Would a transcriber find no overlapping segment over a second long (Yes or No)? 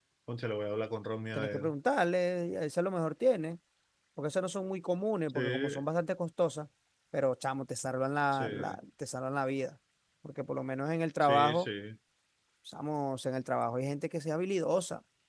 Yes